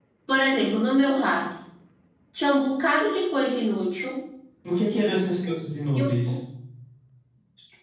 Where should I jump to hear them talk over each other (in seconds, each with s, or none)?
none